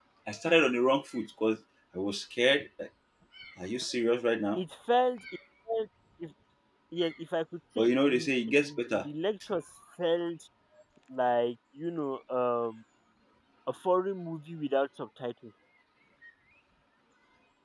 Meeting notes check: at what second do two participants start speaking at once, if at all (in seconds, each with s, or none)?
7.8 s